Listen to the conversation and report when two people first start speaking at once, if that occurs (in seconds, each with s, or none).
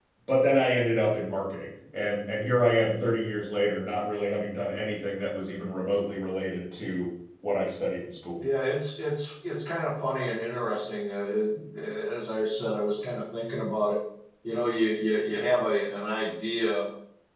none